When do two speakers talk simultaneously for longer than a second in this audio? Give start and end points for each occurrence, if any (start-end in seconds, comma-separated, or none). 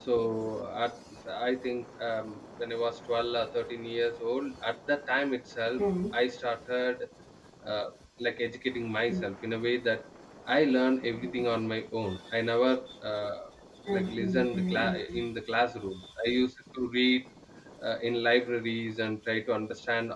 13.9-15.2